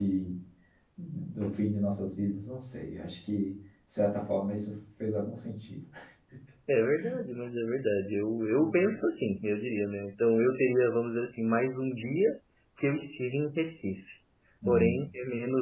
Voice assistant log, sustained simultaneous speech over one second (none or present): none